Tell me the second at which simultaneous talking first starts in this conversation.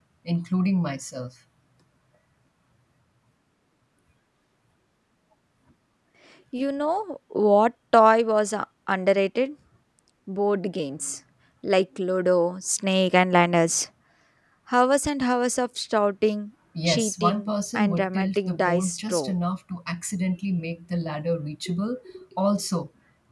16.8 s

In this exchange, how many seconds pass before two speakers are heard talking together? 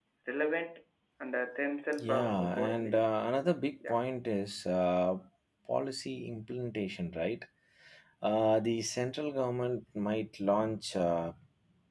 1.9 s

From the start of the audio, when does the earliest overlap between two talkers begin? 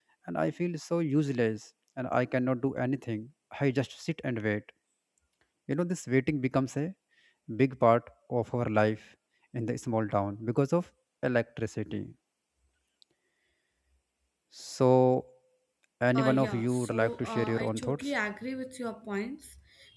16.1 s

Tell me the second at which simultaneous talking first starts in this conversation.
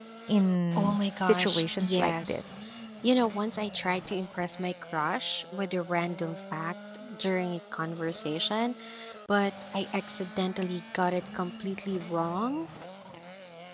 0.8 s

